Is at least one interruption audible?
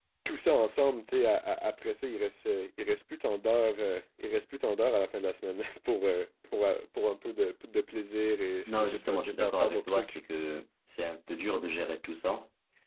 Yes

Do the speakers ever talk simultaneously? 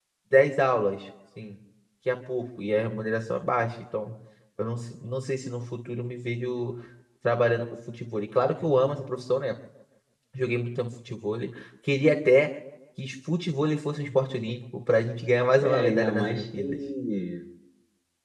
Yes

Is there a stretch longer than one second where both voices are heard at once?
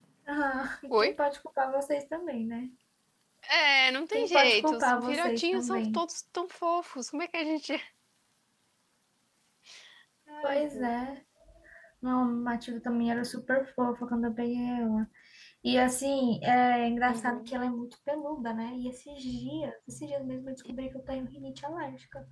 Yes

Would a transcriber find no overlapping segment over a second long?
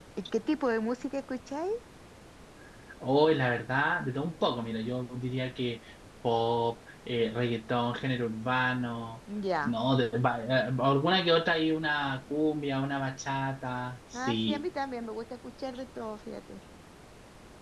Yes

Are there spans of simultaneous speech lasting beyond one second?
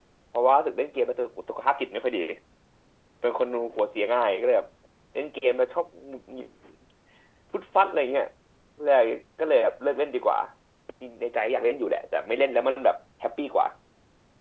No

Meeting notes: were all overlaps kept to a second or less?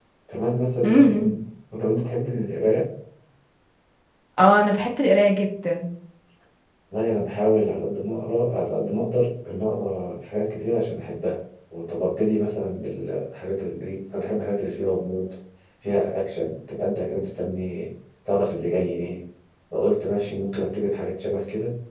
Yes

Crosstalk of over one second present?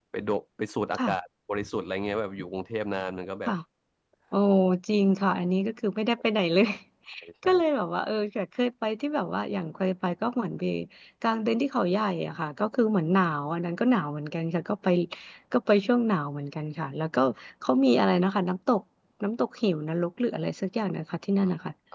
No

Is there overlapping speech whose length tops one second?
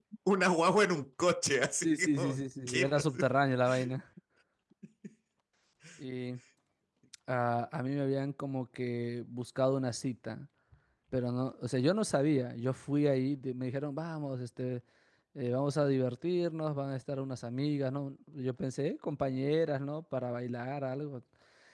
Yes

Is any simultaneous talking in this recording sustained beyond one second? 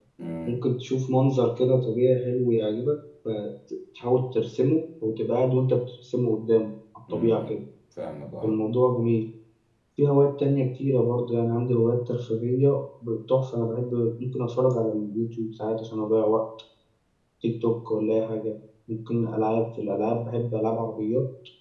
No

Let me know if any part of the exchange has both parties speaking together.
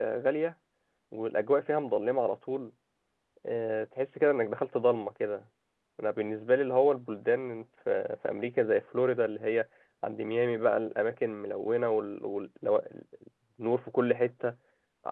No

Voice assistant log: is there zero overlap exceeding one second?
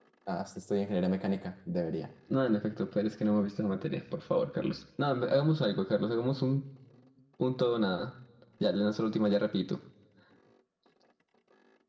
Yes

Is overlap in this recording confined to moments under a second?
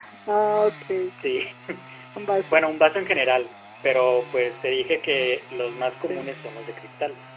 Yes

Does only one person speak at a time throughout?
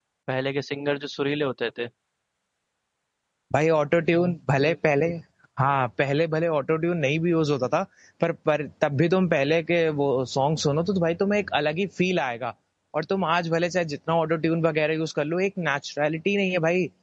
Yes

